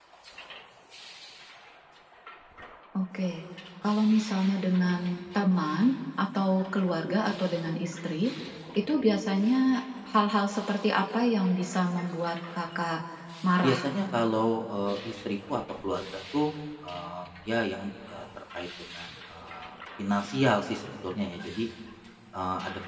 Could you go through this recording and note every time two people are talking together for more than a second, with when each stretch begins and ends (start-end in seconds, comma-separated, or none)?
none